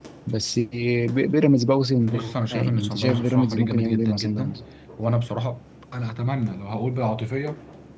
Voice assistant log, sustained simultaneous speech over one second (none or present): present